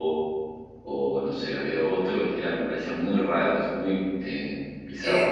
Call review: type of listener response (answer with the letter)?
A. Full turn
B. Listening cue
A